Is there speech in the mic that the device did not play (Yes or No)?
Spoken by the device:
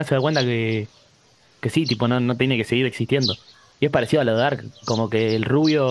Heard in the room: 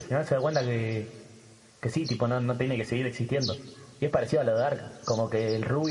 No